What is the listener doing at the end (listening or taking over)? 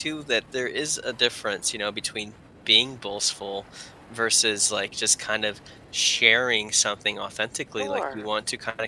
listening